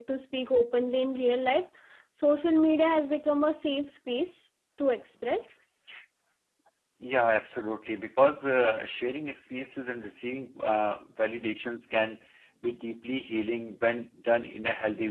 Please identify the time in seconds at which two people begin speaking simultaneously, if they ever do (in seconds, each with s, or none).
none